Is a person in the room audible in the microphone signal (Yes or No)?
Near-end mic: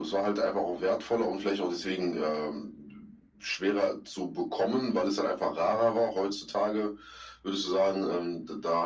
No